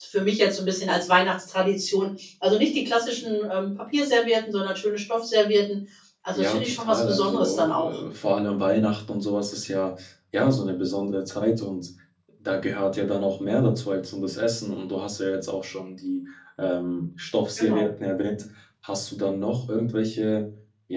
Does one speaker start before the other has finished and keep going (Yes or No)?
Yes